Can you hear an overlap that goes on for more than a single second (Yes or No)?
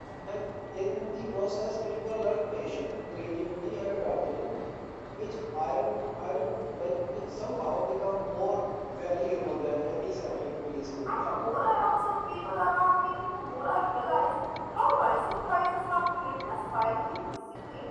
No